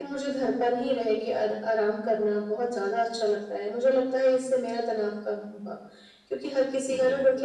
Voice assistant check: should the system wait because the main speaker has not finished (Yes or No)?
Yes